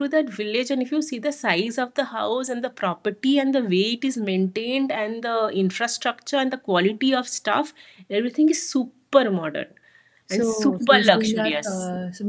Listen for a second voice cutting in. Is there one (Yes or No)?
Yes